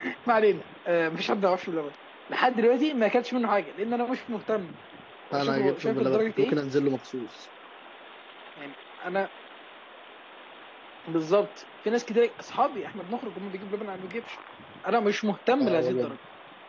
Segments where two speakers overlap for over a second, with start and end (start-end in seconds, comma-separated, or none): 5.3-6.5